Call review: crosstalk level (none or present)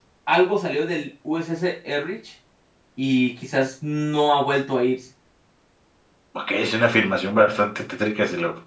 none